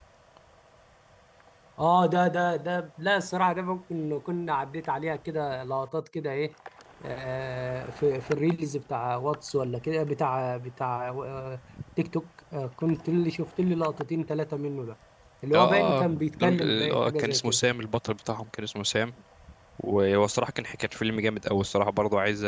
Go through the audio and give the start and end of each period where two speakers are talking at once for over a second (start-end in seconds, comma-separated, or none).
15.5-17.6